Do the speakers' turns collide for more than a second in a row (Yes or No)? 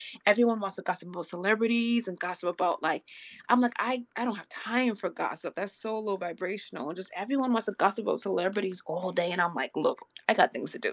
No